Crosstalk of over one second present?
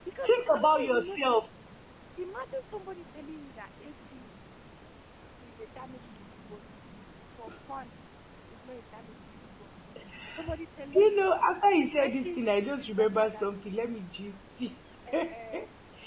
Yes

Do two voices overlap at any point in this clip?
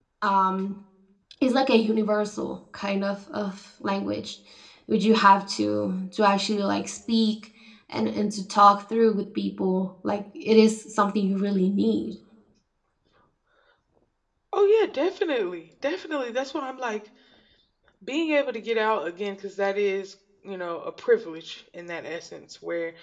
No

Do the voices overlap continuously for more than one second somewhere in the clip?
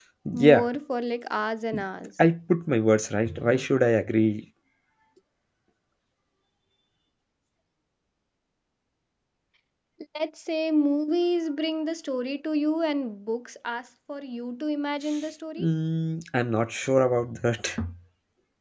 No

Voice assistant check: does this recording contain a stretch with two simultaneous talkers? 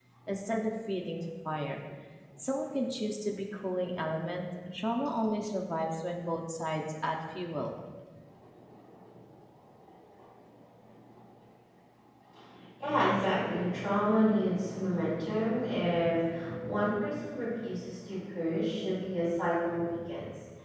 No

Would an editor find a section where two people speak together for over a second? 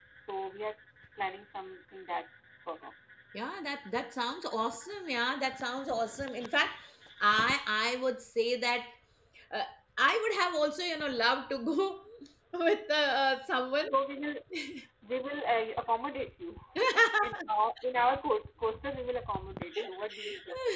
No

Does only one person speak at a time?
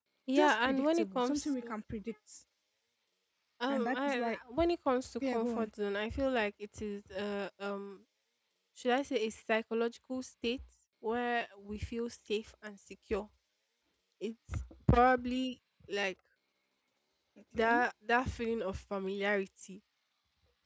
No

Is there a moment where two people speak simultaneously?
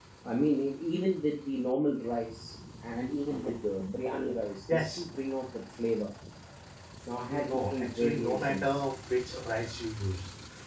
Yes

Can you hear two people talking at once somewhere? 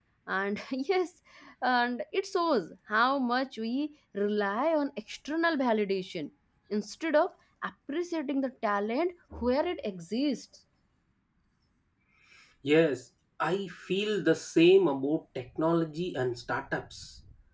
No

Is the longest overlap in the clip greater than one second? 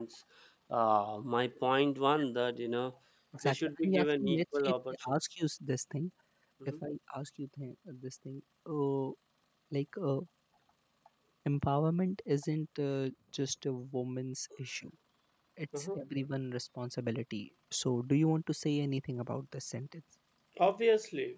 Yes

